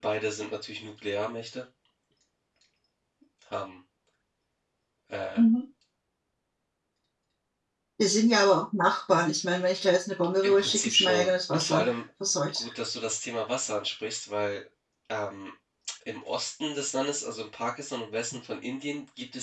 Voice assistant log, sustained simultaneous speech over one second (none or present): present